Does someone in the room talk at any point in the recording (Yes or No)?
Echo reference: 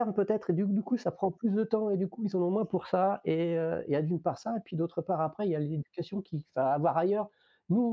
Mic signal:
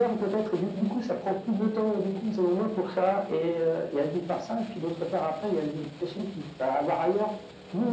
No